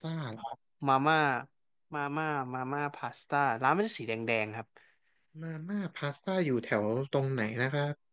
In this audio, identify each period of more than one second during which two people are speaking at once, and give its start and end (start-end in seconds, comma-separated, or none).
none